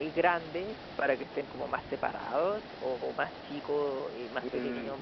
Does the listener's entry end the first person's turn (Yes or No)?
Yes